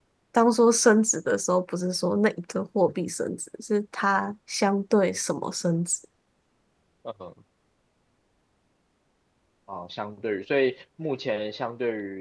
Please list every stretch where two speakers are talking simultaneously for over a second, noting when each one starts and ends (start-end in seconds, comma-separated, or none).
none